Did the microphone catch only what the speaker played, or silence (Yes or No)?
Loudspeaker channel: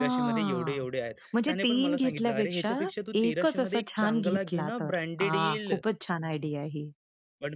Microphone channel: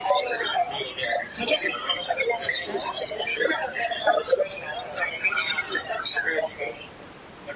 Yes